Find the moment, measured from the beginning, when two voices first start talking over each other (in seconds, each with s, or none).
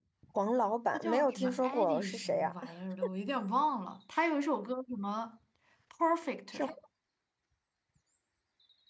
0.9 s